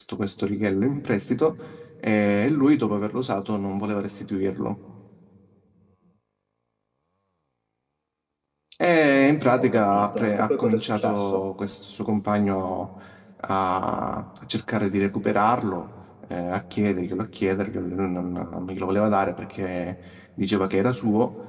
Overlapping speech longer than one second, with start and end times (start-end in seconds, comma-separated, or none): 9.6-11.4